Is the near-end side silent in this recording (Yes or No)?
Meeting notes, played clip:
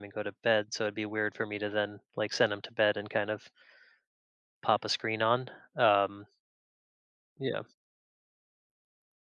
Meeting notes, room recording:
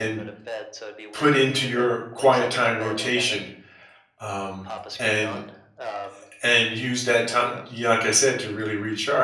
No